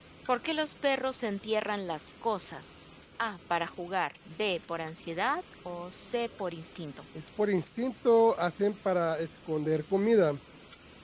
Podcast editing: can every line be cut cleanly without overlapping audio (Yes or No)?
Yes